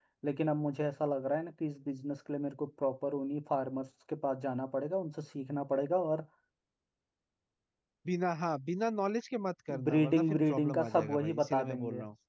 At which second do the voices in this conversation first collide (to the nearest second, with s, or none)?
10 s